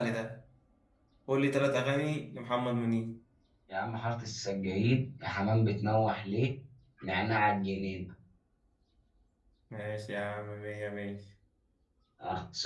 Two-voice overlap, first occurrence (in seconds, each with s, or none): none